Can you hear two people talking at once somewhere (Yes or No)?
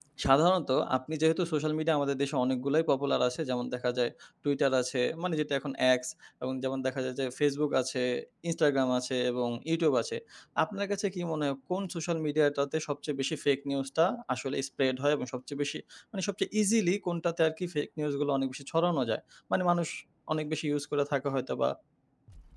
No